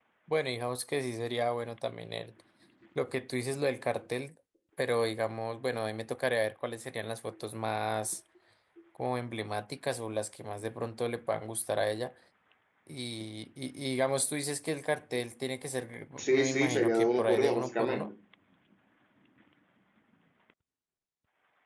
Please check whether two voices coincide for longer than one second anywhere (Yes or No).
Yes